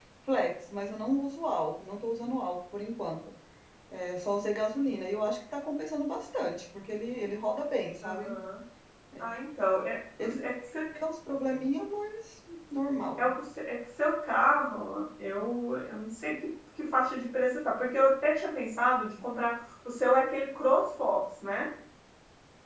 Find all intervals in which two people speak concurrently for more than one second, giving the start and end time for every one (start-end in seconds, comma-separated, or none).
none